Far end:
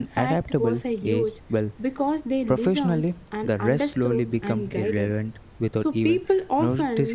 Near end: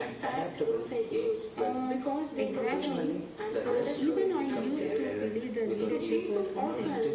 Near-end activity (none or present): present